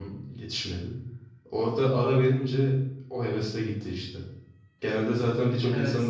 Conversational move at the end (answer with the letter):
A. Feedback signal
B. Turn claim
B